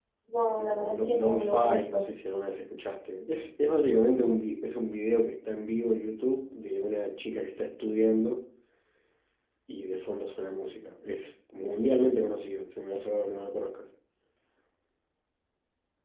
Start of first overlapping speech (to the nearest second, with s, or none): 1 s